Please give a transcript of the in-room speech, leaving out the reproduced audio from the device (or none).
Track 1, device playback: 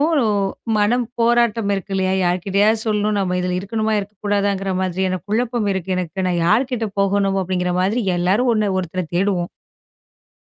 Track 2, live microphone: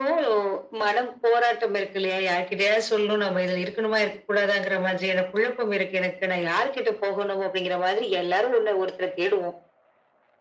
none